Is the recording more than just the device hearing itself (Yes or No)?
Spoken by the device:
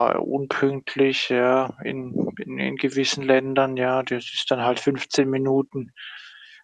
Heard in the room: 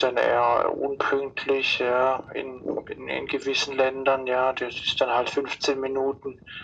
No